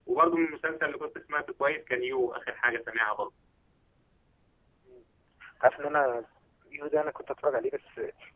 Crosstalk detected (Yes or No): No